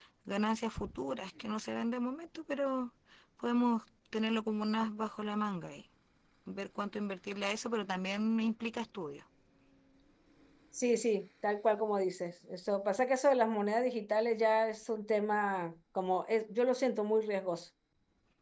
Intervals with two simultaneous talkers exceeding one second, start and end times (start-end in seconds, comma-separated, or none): none